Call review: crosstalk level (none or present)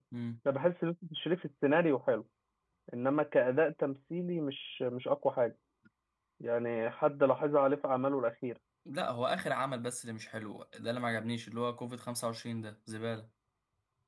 none